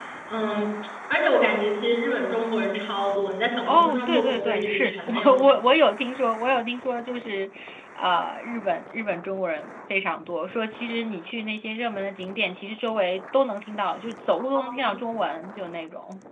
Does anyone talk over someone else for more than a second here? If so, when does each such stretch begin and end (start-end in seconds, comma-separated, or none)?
3.7-5.5